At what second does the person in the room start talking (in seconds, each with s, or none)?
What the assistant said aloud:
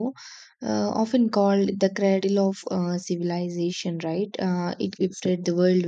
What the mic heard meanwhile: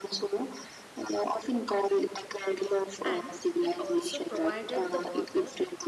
3.0 s